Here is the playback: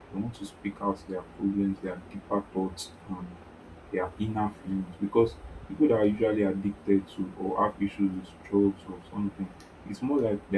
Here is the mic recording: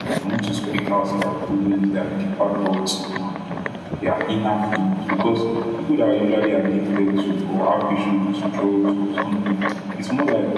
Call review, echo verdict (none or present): present